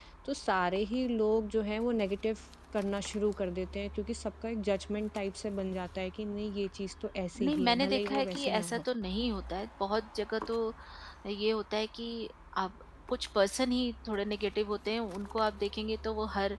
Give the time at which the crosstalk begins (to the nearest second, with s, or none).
7 s